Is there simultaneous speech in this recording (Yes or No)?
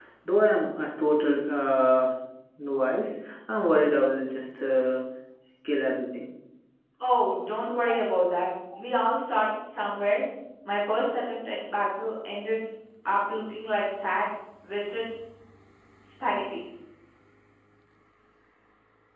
No